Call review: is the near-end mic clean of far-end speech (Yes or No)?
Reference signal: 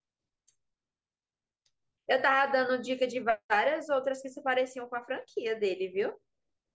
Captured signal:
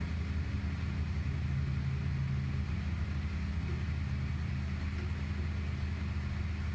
Yes